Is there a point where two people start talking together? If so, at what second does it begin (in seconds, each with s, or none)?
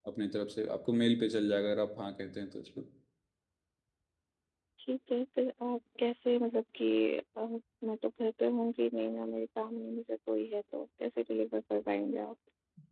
none